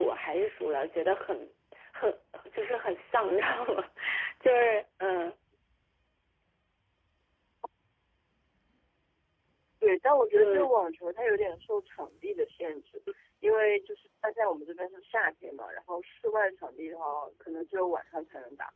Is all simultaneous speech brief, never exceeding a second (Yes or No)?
Yes